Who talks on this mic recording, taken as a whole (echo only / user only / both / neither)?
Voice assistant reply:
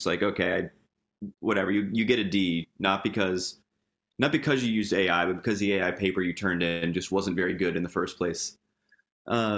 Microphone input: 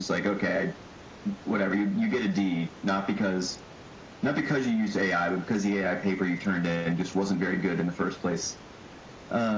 echo only